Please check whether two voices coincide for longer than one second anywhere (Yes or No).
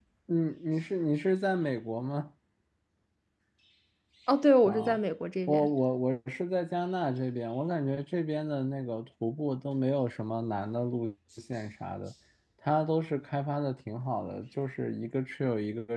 No